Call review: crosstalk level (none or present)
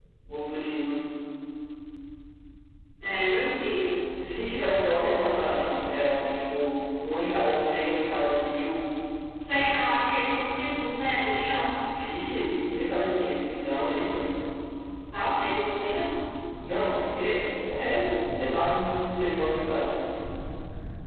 none